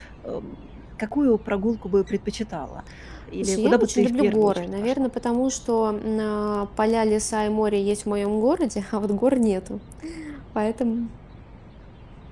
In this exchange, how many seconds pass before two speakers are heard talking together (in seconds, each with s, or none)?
3.4 s